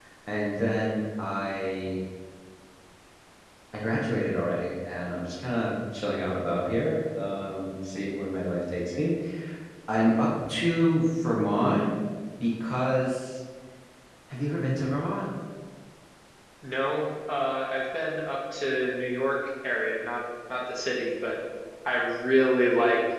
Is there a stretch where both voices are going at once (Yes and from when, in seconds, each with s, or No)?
No